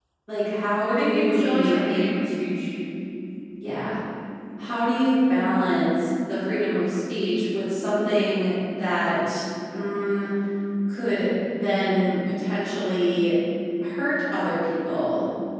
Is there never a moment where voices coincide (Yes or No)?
No